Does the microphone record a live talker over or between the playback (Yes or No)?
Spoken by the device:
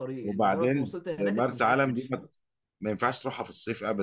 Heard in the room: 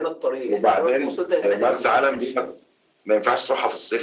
No